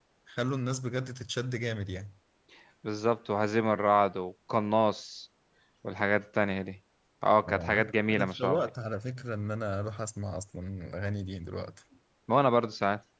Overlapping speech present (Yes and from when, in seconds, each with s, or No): Yes, from 7.4 s